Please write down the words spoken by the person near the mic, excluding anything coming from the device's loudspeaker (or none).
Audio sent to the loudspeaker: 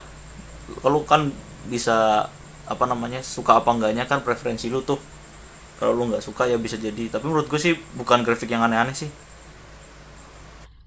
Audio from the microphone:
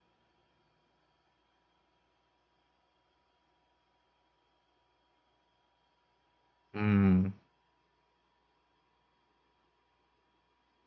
mmm,